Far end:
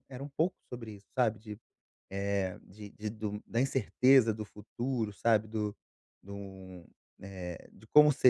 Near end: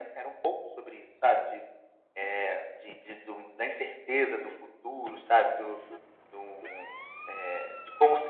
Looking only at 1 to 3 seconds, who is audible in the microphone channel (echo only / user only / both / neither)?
echo only